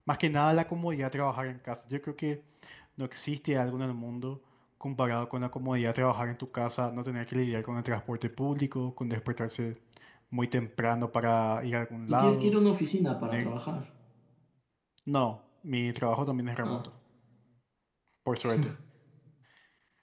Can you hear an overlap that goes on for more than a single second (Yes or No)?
No